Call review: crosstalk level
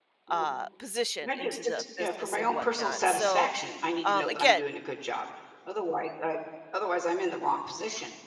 present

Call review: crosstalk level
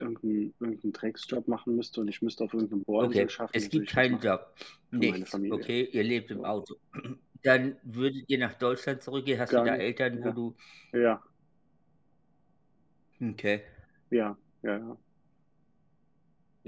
present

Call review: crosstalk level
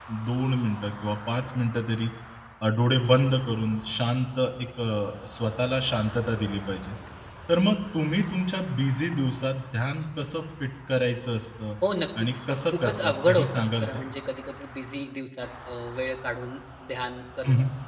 present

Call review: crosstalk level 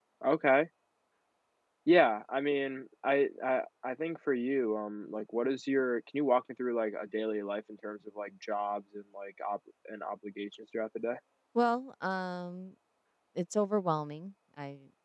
none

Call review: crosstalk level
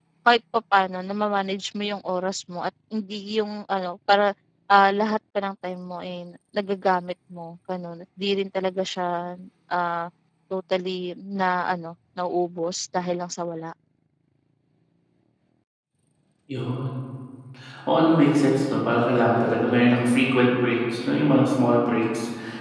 none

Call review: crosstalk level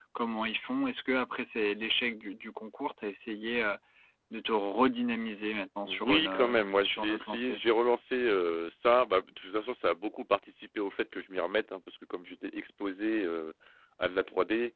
present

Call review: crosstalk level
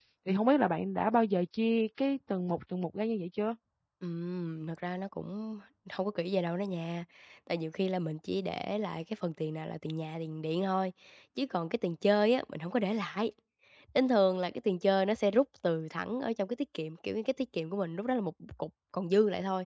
none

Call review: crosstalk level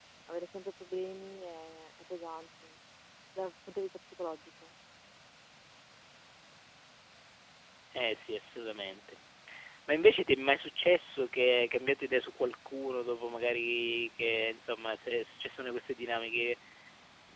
none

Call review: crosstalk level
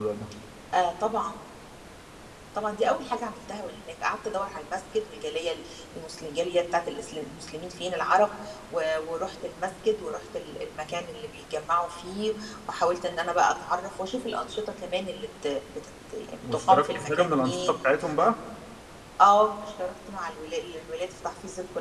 present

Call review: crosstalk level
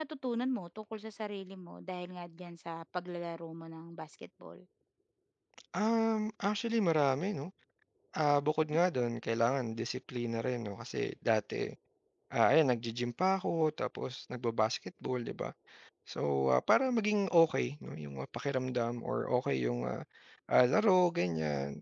none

